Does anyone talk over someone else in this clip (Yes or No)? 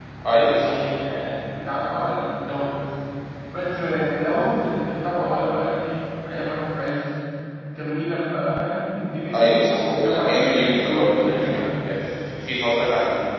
Yes